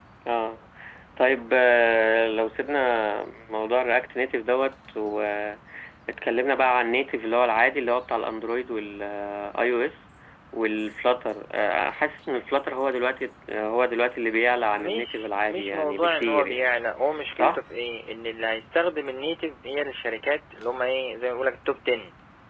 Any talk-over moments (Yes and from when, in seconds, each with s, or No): Yes, from 14.7 s